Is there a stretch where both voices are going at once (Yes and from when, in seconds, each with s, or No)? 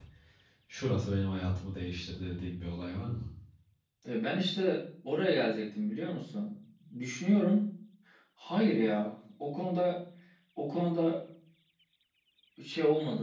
No